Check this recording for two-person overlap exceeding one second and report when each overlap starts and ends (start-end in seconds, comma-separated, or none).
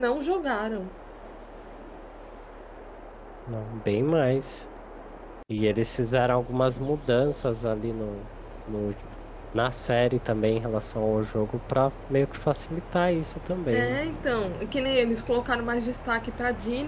none